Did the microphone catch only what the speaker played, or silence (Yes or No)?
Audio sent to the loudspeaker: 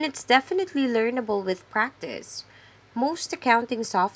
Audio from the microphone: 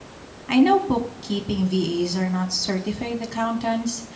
No